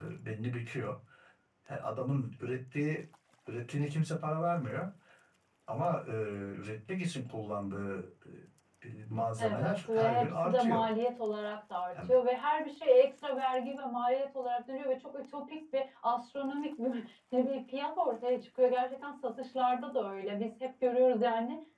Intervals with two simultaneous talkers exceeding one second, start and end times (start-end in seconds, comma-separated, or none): 9.4-10.8